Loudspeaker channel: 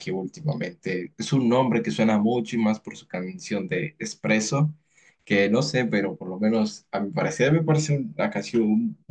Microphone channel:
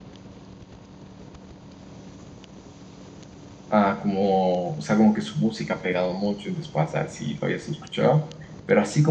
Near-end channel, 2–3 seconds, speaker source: neither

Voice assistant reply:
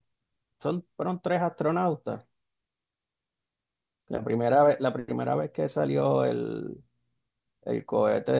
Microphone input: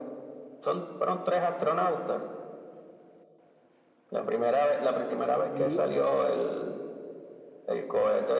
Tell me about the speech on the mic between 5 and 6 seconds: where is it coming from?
both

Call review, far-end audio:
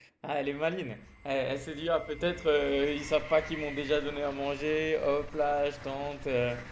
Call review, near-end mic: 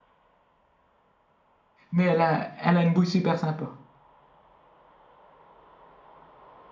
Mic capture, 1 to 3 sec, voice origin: user only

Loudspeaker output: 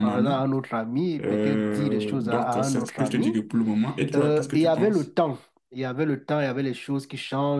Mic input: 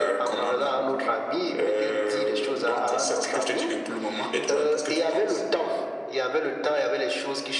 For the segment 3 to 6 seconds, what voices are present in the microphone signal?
echo only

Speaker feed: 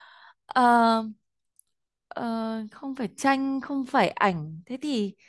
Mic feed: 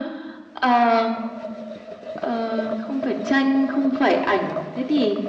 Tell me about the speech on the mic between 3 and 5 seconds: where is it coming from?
echo only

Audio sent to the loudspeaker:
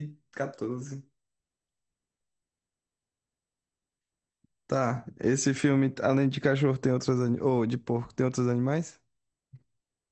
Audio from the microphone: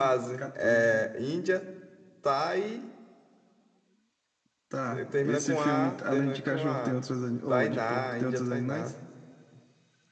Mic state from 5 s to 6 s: both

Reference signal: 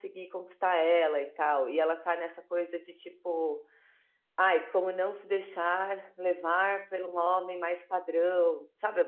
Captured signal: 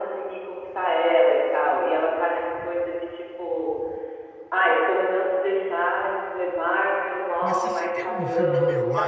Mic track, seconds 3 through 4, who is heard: echo only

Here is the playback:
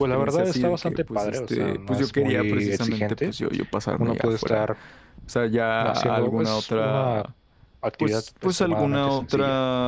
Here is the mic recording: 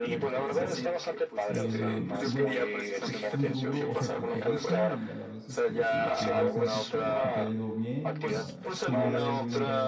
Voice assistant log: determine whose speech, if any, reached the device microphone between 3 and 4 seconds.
both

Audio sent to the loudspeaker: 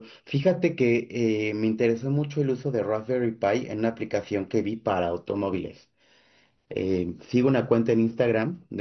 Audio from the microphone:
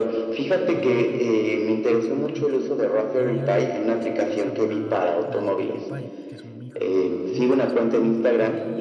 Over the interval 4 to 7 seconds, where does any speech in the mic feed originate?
both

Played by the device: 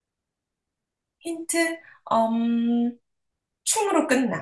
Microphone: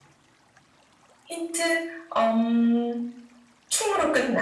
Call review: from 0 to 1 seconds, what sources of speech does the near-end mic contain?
neither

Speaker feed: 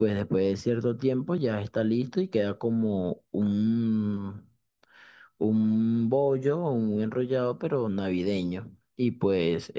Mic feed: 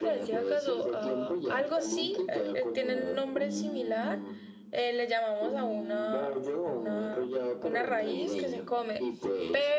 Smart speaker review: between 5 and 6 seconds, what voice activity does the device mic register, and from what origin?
both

